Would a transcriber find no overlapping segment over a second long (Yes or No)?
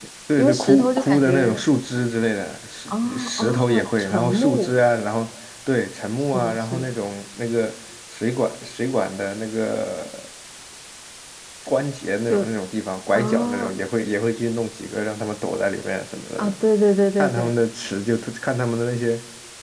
No